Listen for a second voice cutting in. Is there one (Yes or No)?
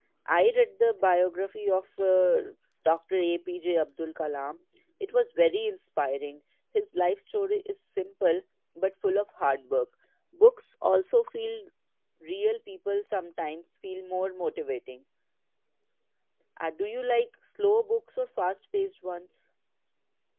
No